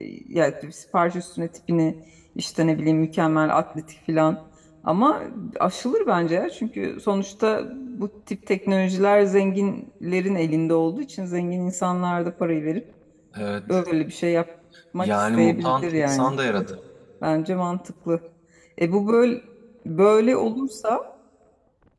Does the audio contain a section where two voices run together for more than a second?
Yes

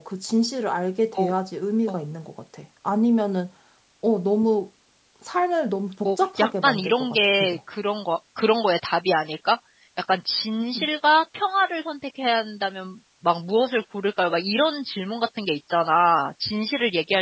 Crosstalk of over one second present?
Yes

